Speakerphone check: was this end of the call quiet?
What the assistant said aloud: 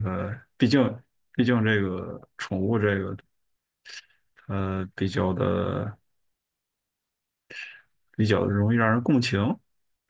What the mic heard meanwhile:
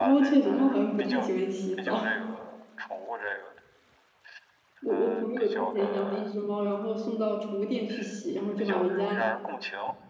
No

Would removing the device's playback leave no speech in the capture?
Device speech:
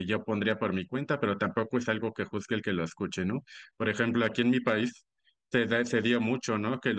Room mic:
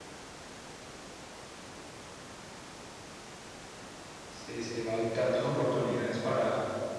No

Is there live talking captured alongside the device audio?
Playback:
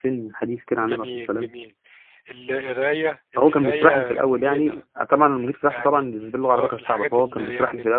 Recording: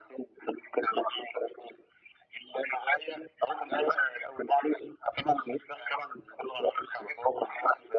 No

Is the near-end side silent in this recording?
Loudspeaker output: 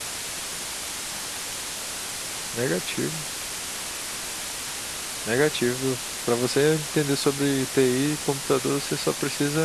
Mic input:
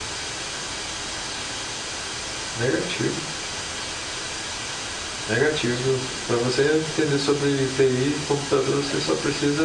Yes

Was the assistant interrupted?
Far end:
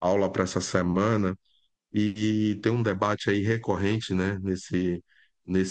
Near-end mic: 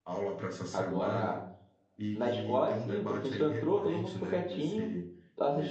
Yes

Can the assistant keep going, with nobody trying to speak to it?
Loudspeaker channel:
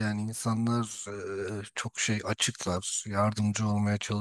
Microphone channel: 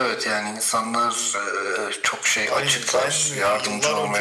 No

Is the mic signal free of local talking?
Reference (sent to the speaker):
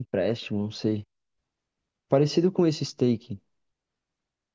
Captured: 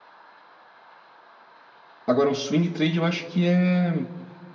No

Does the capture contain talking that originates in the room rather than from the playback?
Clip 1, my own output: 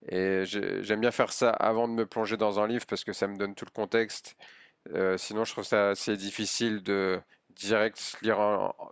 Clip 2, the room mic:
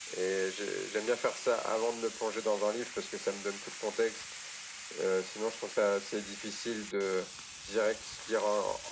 No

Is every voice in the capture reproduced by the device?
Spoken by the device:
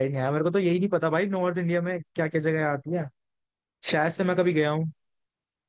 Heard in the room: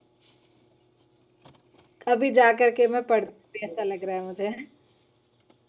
No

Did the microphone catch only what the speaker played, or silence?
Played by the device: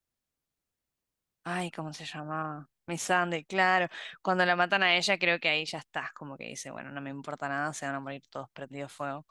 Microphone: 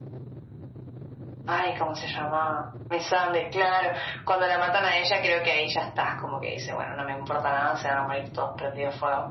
Yes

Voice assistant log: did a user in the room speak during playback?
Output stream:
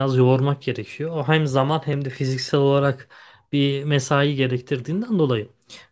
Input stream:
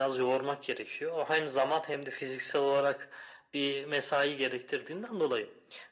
No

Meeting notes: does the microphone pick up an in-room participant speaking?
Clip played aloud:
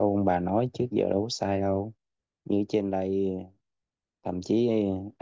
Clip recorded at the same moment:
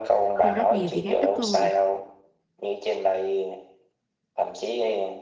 Yes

